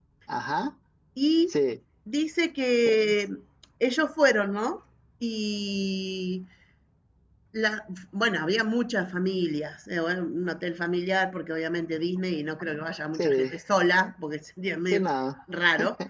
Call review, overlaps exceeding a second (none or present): none